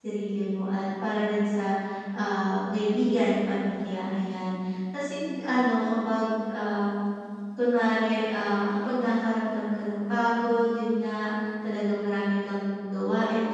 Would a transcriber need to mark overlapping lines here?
No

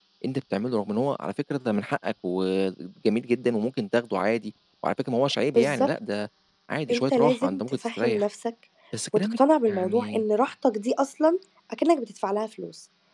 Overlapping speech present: Yes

